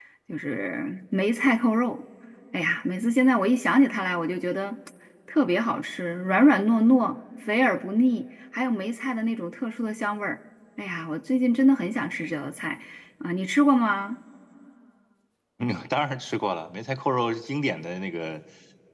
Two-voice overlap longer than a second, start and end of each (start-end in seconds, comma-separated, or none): none